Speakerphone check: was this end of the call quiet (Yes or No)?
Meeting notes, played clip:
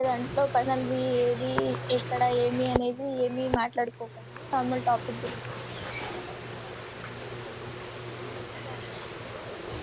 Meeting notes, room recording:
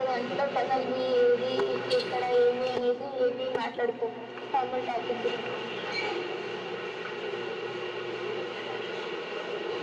Yes